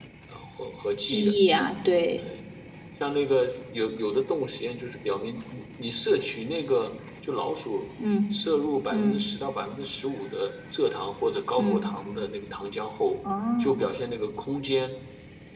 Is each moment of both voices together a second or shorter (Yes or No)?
Yes